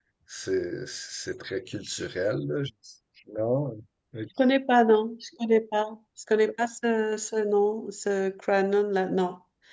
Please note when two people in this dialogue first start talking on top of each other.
none

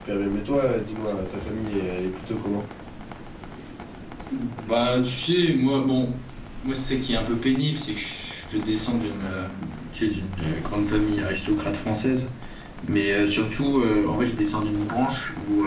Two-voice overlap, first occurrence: none

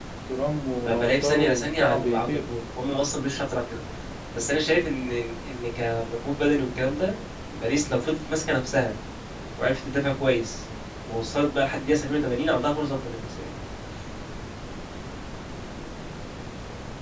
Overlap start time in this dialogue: 1 s

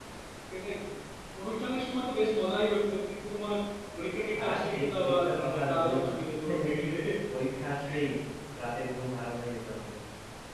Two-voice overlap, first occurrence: 4 s

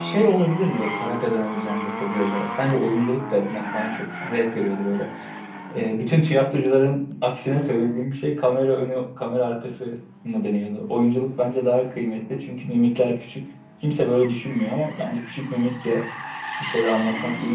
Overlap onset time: none

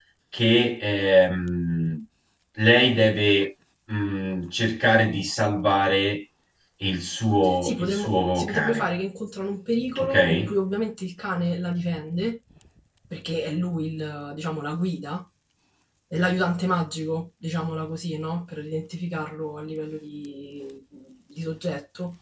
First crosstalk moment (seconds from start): 8 s

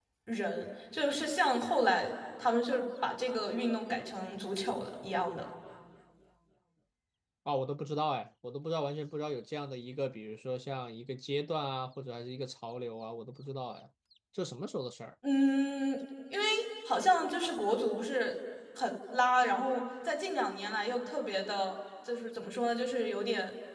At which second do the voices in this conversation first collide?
none

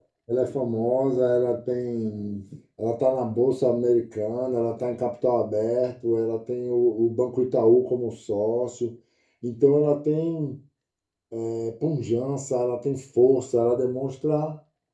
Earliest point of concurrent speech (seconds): none

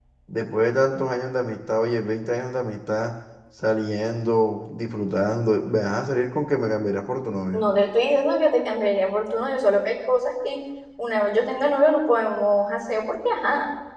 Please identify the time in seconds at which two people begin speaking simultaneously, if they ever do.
none

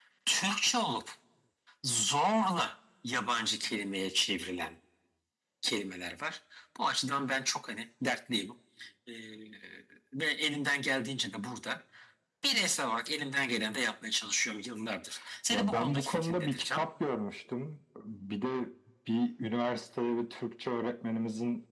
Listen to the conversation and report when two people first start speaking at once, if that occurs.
16 s

